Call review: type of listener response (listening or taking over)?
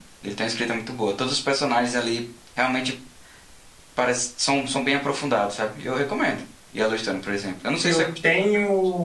taking over